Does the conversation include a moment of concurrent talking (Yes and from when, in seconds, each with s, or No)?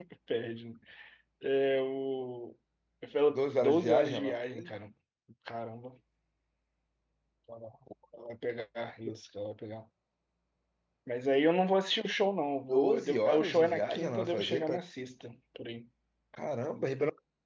Yes, from 3.3 s